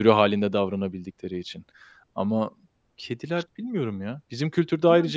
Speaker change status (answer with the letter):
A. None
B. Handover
A